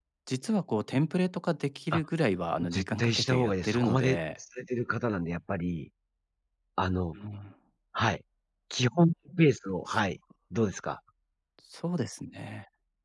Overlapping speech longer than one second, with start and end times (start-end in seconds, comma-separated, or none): 2.7-4.2